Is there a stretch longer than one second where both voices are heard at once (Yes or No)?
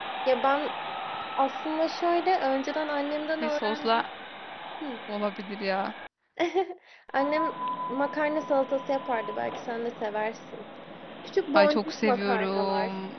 Yes